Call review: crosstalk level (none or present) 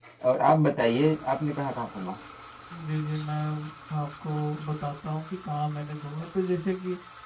none